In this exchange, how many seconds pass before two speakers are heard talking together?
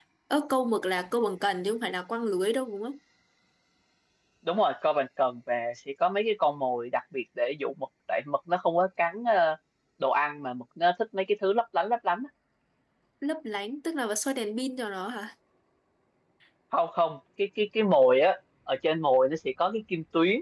none

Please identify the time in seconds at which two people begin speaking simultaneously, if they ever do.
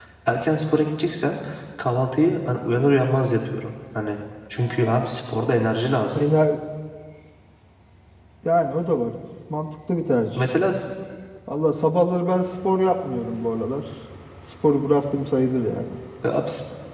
none

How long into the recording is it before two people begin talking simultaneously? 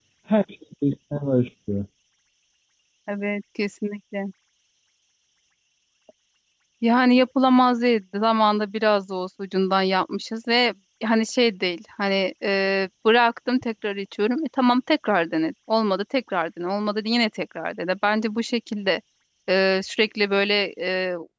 none

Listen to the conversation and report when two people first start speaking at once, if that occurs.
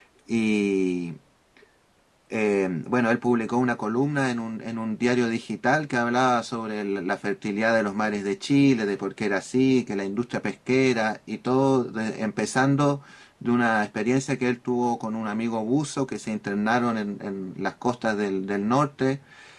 none

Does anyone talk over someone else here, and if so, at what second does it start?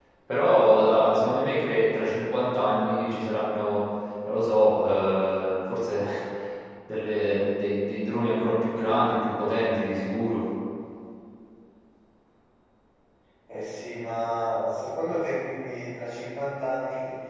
none

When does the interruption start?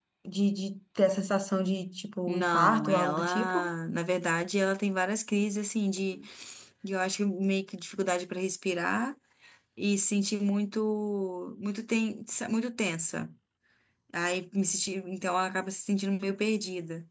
2.3 s

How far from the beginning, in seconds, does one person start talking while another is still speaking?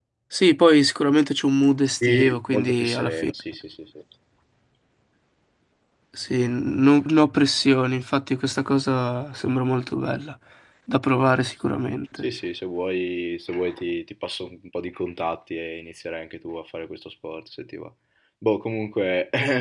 2.0 s

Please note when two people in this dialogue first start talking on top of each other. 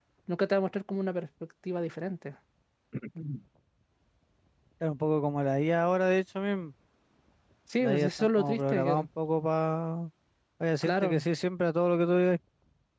7.8 s

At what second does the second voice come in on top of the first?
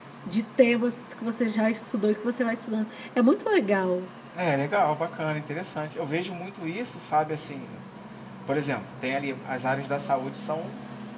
none

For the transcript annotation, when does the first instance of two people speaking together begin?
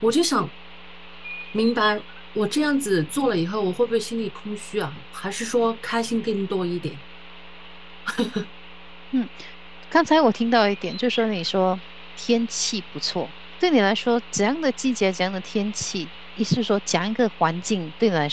none

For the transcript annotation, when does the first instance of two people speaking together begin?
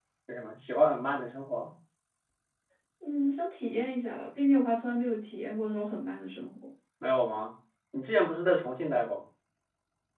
none

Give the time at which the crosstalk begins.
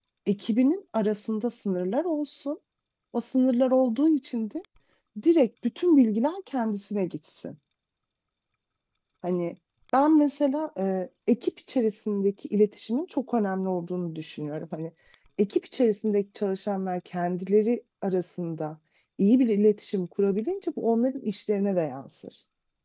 none

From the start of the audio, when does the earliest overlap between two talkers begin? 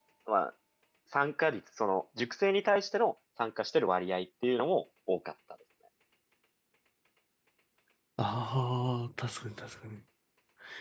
none

